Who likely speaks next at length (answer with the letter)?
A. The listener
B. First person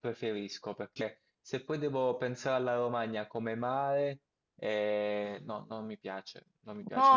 A